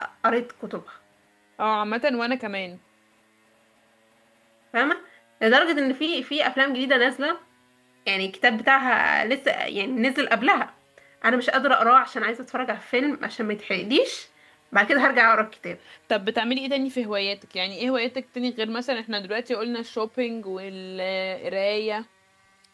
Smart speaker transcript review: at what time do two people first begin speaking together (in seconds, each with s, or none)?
none